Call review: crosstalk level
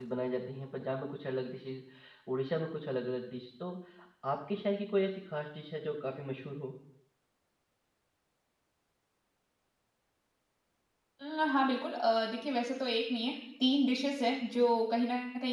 none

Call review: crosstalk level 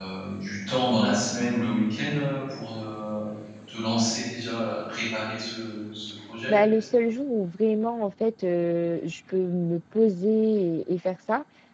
none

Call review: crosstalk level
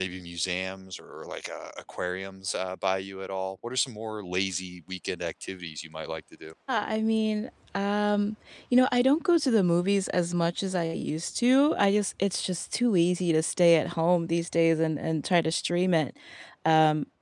none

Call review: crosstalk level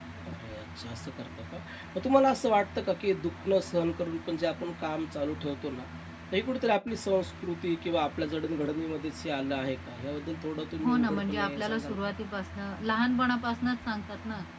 present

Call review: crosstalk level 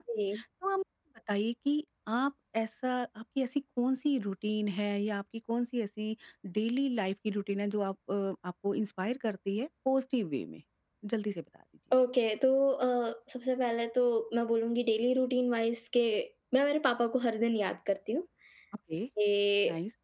none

